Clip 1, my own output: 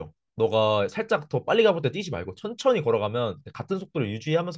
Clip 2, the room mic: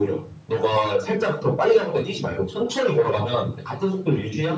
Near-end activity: none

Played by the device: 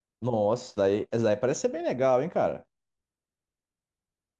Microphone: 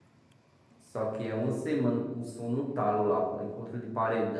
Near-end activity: present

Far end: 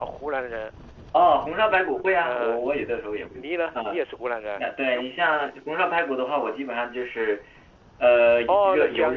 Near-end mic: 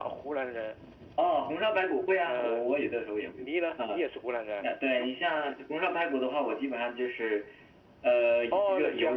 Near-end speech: none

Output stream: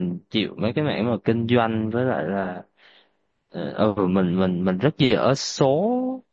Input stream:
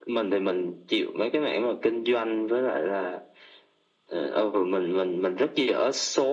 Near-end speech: none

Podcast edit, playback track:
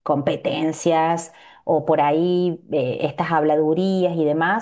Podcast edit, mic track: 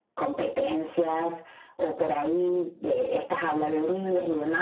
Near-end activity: present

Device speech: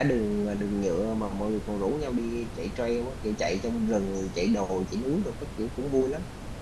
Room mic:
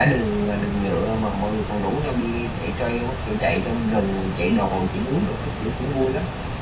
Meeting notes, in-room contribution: none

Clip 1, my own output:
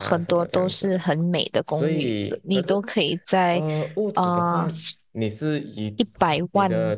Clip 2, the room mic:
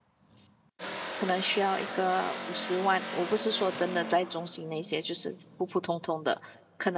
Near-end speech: present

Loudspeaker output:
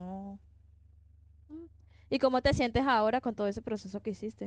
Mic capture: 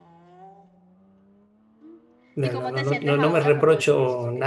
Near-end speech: present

